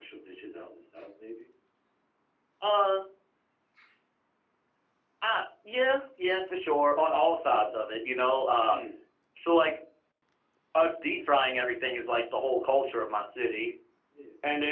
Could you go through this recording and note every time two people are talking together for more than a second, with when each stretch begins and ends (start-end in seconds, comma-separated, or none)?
none